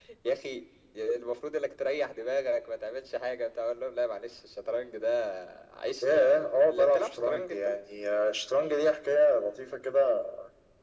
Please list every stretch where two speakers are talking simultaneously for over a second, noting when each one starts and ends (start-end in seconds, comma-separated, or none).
6.0-7.7